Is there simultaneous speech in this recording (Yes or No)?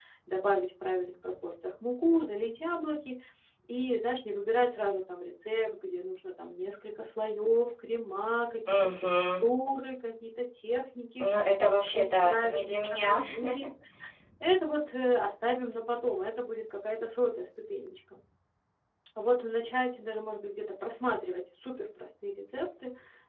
Yes